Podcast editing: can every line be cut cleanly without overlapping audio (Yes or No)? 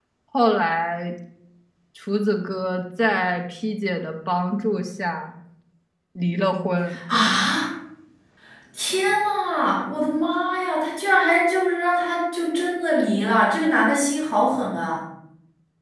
Yes